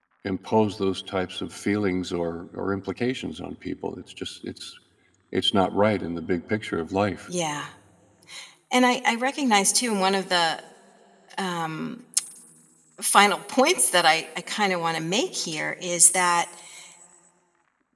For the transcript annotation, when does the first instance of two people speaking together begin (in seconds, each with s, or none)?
none